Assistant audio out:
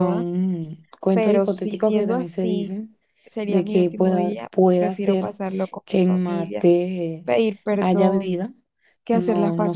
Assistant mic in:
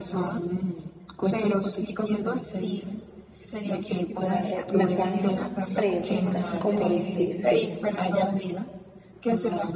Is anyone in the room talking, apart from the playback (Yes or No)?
Yes